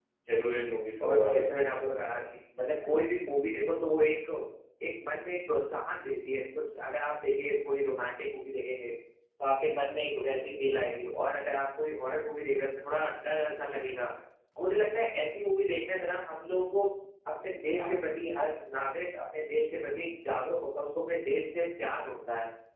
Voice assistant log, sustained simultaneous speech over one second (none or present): present